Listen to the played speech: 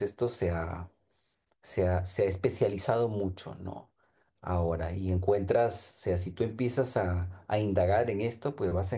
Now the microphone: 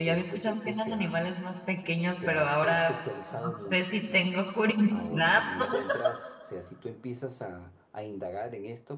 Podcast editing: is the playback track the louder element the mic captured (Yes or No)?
No